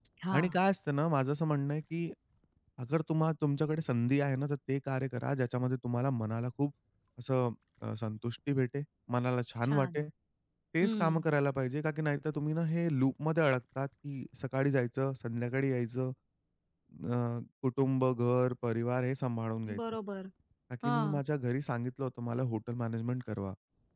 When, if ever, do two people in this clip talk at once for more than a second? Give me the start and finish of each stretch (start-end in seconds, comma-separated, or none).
none